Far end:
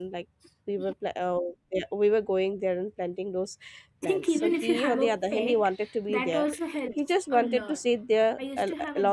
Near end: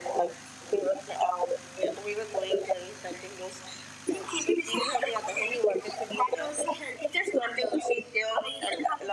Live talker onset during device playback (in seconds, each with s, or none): none